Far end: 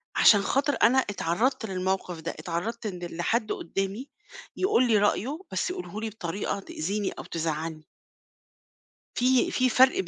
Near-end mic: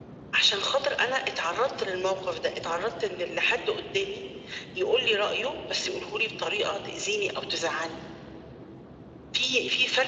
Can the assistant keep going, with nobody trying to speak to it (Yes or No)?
Yes